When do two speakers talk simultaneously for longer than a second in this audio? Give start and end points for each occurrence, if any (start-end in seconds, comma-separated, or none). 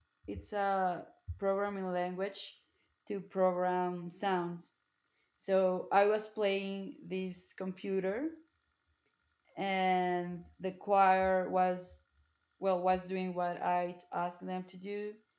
none